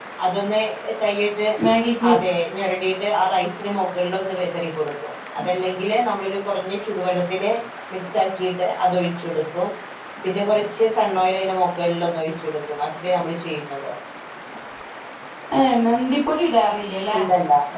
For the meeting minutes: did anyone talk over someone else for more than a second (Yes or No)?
No